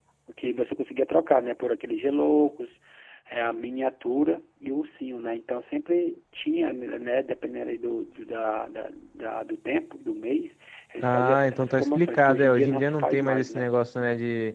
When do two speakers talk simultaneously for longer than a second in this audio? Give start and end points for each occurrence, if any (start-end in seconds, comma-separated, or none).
11.0-13.7